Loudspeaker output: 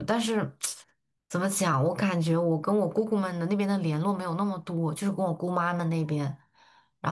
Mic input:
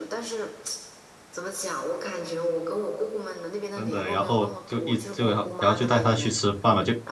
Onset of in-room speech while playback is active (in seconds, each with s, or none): 3.7 s